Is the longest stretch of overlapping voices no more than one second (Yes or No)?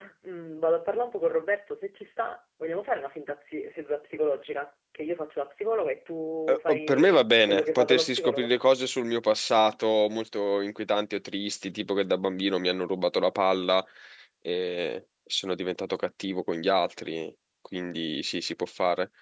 No